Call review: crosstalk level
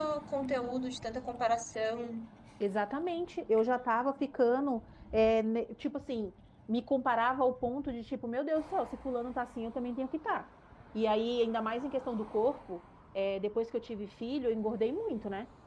none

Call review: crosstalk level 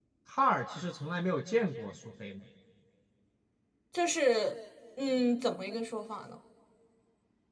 none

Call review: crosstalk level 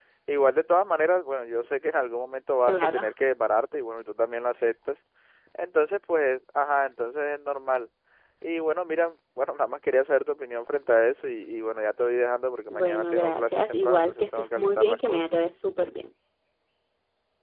present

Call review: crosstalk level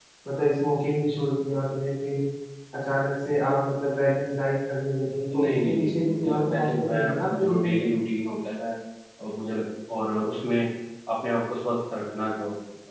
present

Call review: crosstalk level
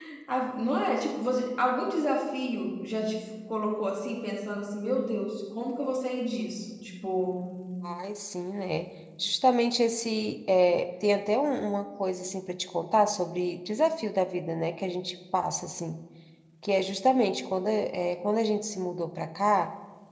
none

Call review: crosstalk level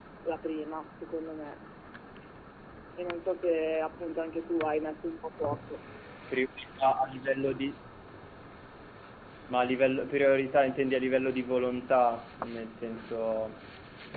none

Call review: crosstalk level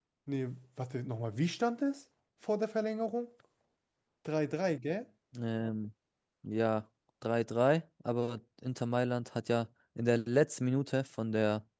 none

